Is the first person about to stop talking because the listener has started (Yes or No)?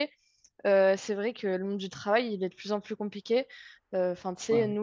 No